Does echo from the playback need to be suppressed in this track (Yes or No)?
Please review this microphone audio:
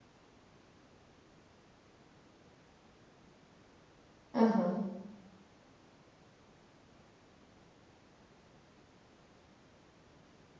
No